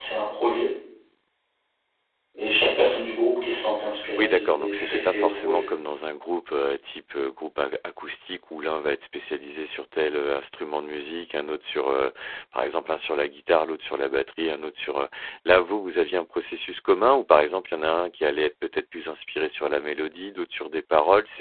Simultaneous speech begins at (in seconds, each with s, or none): 4.2 s